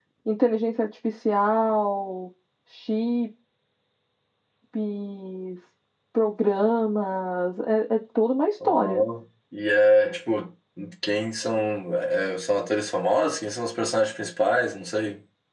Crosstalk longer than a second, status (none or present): none